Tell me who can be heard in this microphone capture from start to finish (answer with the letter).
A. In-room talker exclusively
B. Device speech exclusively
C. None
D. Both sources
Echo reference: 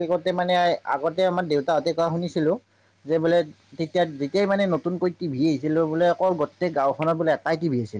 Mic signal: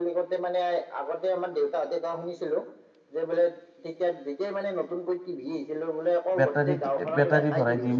D